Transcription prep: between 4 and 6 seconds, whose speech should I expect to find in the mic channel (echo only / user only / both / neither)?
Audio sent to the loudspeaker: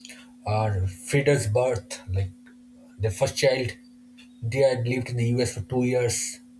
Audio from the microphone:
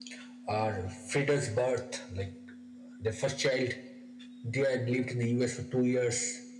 echo only